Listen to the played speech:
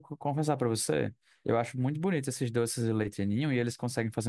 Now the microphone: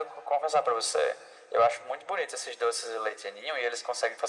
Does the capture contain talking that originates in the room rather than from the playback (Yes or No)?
No